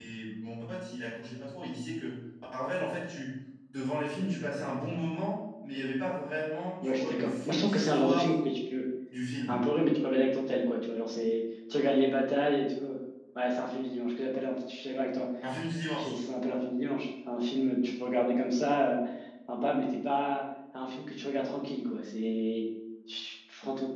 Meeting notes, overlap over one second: present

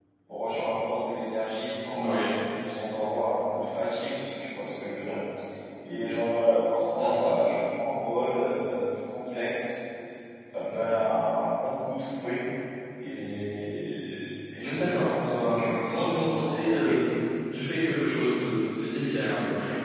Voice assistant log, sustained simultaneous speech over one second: present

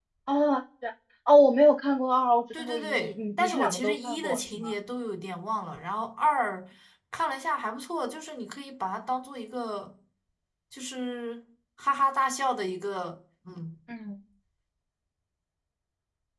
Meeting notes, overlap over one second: present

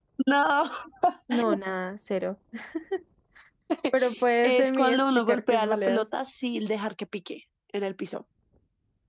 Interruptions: present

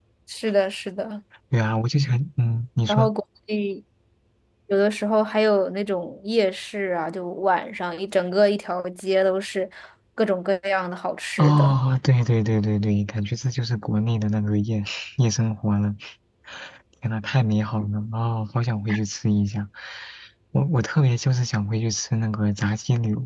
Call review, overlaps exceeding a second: none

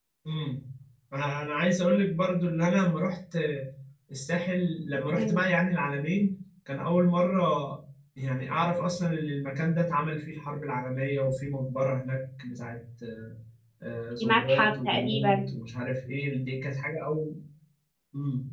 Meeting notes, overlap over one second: present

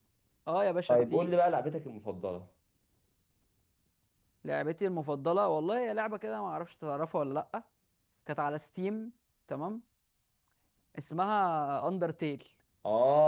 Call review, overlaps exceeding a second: none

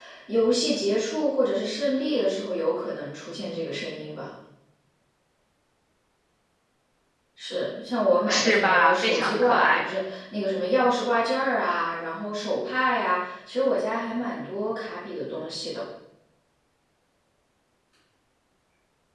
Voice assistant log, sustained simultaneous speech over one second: present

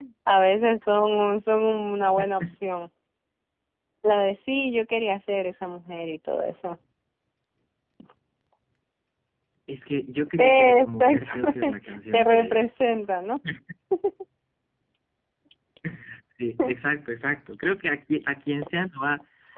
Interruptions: present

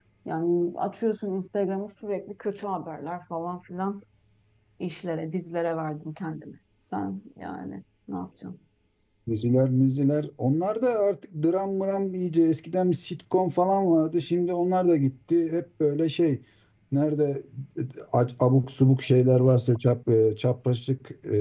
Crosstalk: none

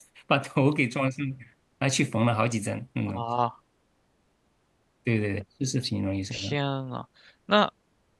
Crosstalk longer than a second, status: none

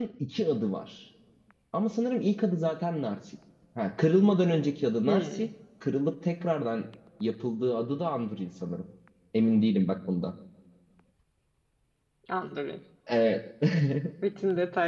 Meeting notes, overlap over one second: none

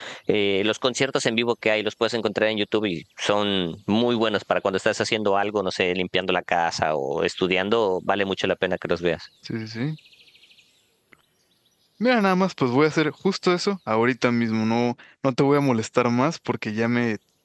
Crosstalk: none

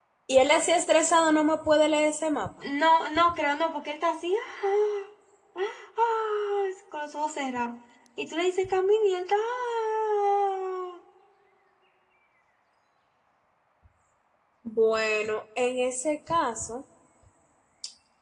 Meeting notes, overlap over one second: none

